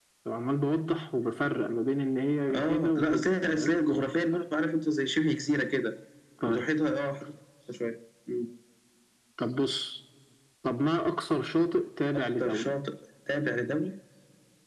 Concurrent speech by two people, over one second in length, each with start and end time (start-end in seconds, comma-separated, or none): 2.5-3.8